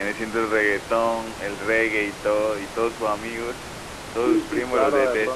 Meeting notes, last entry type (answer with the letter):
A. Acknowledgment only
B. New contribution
B